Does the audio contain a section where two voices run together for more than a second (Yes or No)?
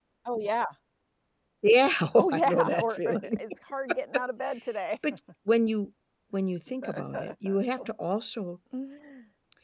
Yes